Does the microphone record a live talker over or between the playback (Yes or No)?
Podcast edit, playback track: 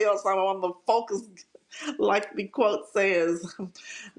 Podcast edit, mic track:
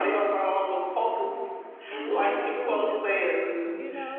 Yes